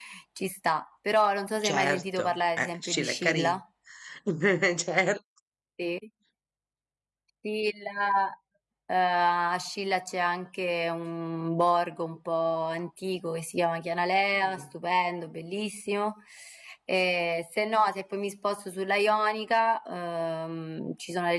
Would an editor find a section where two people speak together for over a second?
Yes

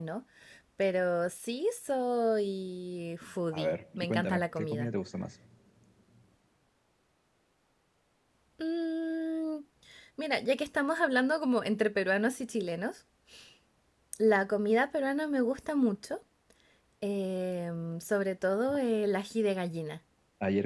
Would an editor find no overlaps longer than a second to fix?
No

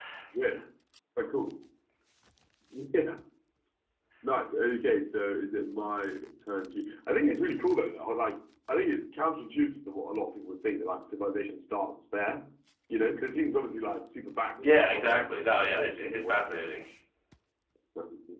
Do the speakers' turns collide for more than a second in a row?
Yes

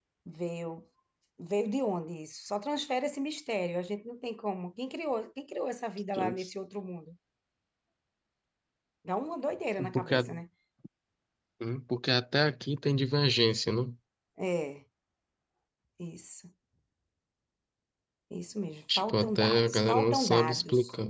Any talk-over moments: Yes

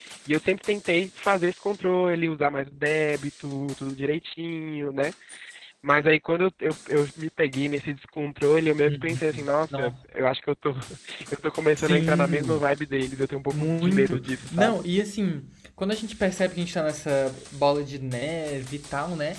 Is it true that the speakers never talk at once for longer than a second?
No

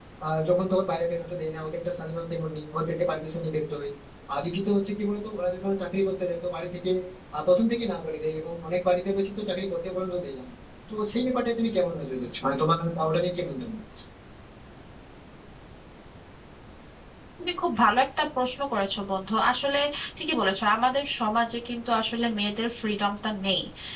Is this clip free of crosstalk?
Yes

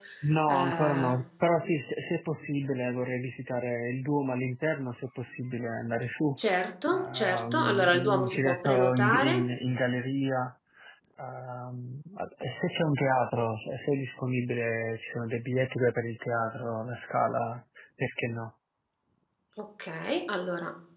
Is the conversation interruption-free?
No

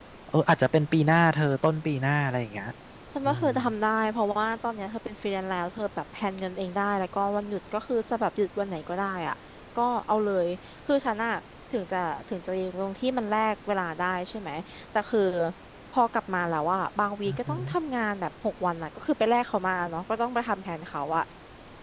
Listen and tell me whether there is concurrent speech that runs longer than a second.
No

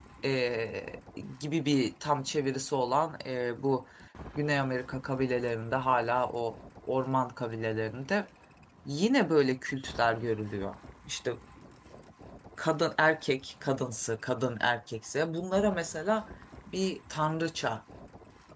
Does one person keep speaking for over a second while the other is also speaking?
No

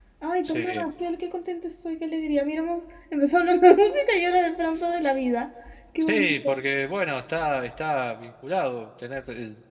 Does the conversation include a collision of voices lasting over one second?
No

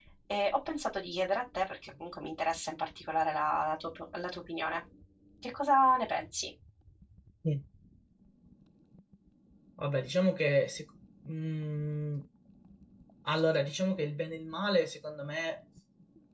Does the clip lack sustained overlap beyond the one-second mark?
Yes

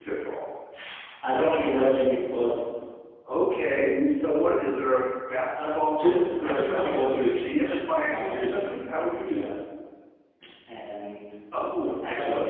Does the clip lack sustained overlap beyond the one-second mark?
No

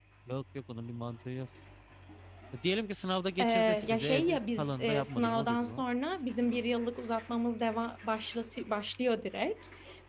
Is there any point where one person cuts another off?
Yes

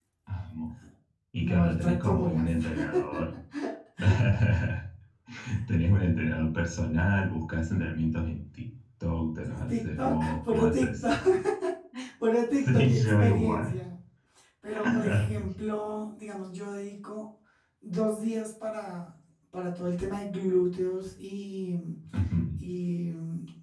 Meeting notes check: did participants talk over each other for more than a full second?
Yes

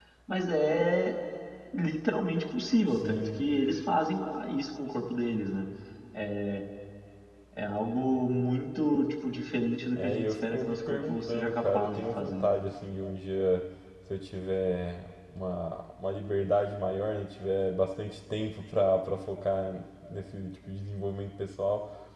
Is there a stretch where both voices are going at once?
Yes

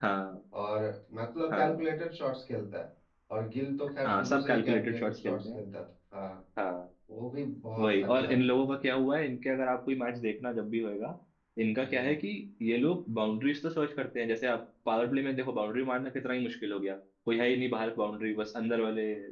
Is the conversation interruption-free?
No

